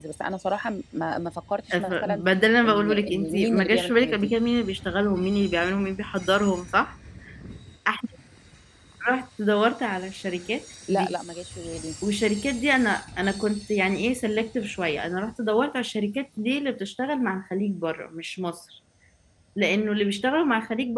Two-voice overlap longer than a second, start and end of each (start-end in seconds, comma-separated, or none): 2.7-4.3